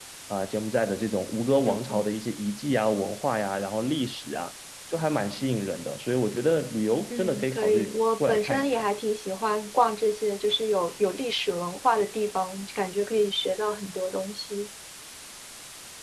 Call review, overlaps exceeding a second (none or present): present